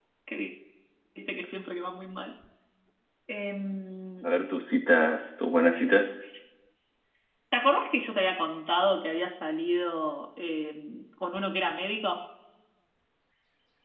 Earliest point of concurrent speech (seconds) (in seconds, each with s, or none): none